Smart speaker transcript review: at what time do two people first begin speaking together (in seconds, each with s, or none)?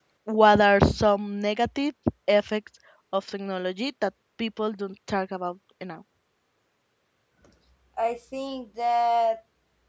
none